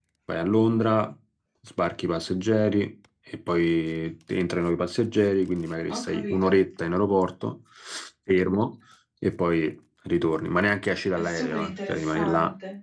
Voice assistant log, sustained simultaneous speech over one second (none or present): present